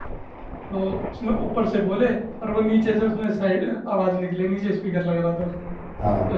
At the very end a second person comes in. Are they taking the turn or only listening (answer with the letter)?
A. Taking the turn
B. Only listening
B